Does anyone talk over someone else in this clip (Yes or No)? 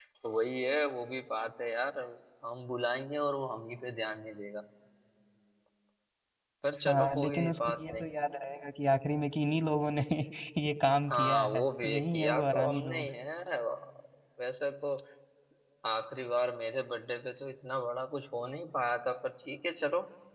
Yes